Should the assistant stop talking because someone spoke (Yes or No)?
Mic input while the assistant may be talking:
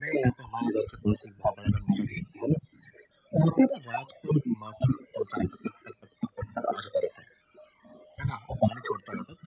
No